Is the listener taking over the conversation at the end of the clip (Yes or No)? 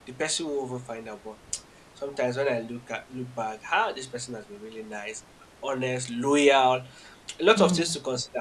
No